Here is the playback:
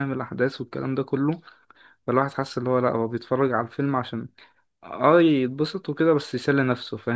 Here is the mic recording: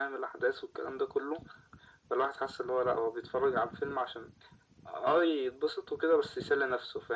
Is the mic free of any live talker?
Yes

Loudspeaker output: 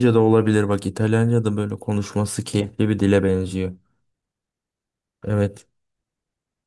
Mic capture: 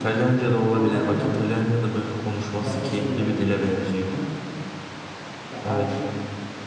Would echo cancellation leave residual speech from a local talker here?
Yes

